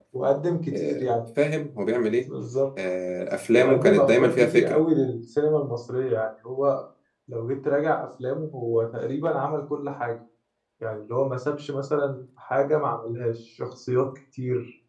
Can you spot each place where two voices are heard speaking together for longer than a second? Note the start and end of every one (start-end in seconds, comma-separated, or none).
3.5-4.8